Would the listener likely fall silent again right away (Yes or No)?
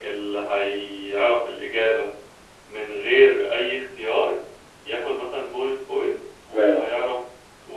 Yes